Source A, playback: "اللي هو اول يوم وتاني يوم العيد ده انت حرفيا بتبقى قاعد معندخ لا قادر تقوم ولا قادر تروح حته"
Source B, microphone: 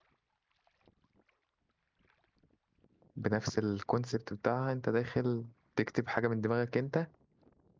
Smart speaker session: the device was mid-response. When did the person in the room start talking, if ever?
3.2 s

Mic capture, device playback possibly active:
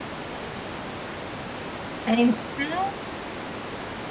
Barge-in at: 2.0 s

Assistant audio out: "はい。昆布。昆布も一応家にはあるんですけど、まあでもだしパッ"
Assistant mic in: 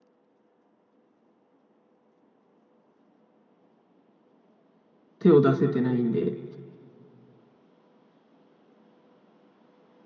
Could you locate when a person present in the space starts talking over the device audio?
5.2 s

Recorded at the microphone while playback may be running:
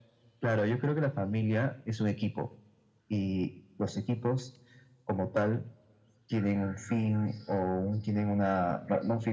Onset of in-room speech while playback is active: none

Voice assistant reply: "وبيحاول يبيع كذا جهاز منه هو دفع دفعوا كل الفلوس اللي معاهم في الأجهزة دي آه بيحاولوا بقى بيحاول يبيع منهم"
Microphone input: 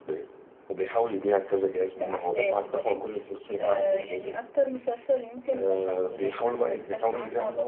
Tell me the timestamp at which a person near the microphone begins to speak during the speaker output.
2.0 s

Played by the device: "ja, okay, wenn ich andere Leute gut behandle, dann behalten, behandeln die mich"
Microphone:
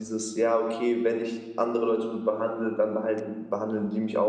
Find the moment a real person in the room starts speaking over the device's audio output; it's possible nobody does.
none

